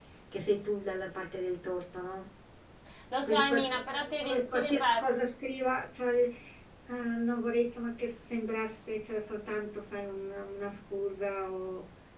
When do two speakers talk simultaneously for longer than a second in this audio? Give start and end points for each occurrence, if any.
3.2-5.0

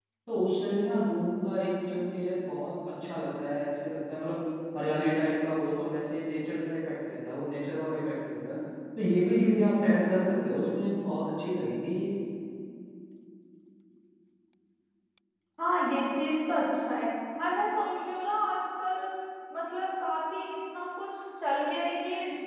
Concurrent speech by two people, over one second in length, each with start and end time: none

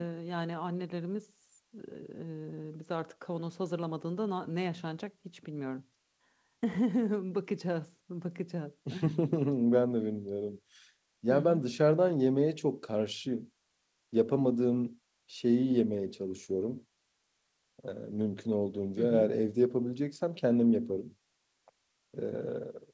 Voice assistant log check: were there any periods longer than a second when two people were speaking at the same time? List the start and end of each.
none

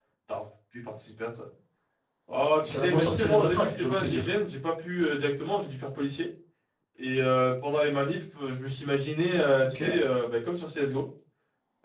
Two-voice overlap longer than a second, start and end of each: 2.7-4.2

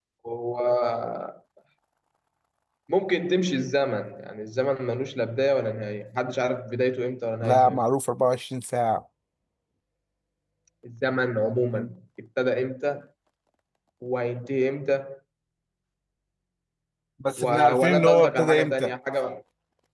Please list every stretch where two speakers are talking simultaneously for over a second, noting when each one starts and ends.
17.4-18.9

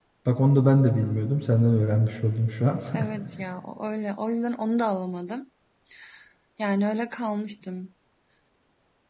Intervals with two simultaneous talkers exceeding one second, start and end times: none

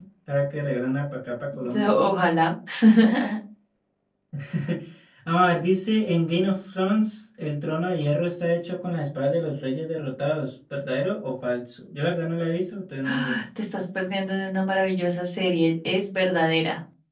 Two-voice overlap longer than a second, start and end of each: none

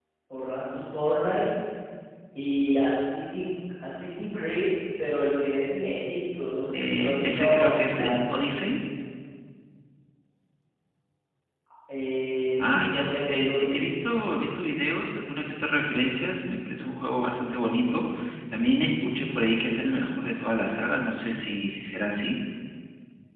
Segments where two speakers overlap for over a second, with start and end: 6.7-8.2, 12.6-13.9

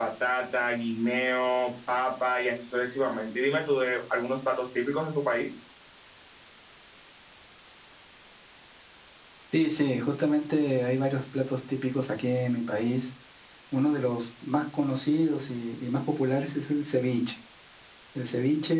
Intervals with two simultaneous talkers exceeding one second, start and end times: none

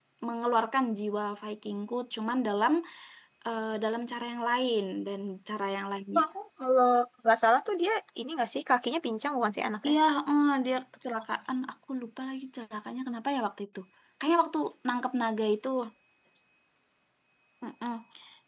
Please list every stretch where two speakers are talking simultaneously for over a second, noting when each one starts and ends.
none

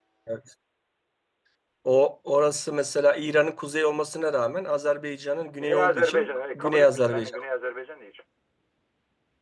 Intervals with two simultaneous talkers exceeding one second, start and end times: 5.6-7.4

